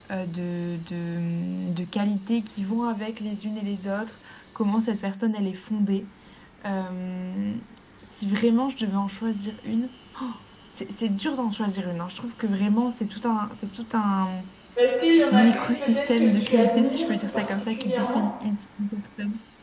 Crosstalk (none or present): present